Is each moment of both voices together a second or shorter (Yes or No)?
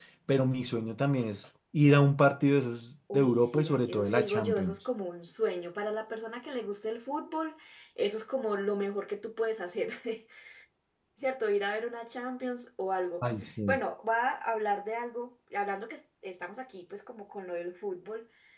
No